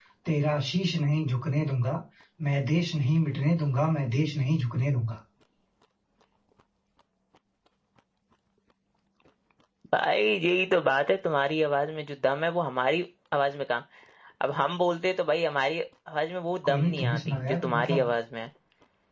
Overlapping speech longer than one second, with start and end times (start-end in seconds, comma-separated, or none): 16.7-18.1